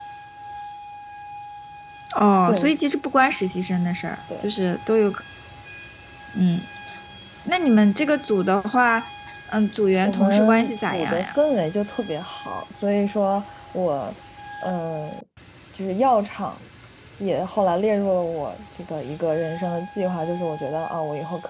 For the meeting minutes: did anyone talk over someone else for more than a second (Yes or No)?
Yes